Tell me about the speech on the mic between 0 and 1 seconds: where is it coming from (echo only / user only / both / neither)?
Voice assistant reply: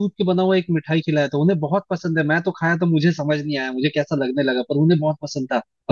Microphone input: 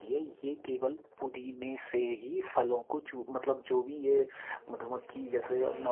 user only